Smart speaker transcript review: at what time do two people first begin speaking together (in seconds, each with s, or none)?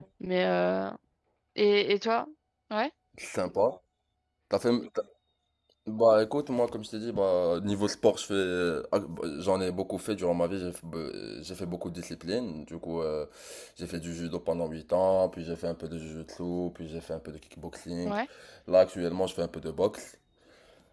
none